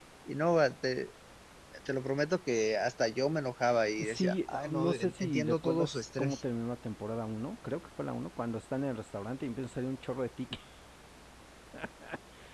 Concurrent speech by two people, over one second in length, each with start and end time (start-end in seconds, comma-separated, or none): 4.0-6.4